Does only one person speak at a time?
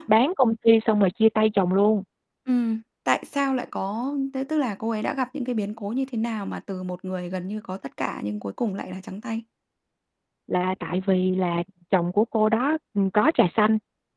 Yes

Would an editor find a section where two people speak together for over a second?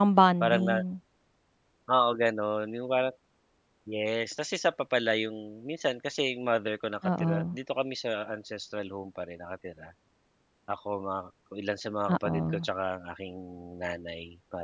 No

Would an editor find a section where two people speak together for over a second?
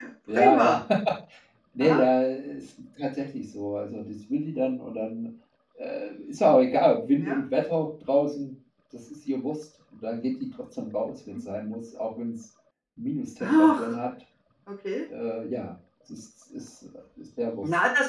No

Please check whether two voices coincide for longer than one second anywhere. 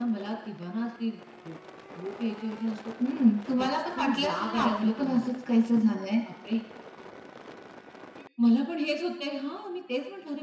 Yes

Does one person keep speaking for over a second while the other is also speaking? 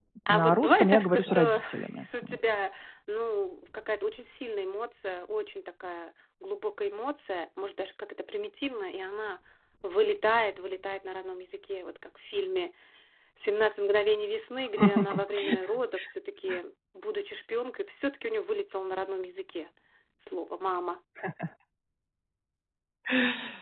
Yes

